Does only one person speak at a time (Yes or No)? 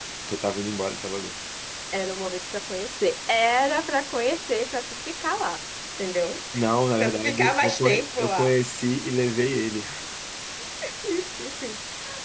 No